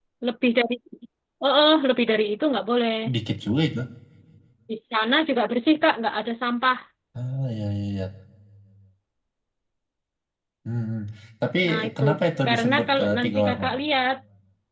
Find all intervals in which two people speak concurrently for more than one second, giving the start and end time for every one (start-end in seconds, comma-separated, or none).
12.4-13.7